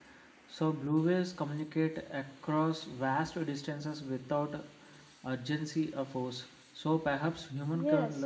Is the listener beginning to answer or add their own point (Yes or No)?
Yes